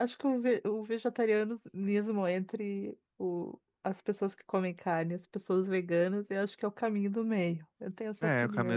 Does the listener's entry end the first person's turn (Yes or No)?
Yes